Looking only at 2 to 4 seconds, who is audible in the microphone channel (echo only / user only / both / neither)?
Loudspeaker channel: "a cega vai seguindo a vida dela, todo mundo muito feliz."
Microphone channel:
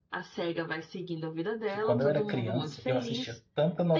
both